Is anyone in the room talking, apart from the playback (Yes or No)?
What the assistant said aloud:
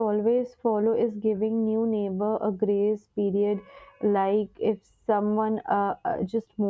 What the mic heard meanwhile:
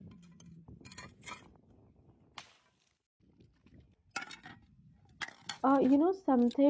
Yes